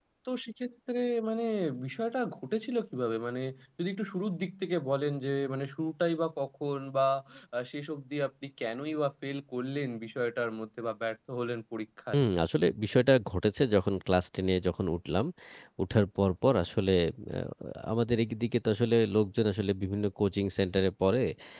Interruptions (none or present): none